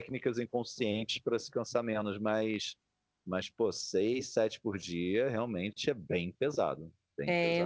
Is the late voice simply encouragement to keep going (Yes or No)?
No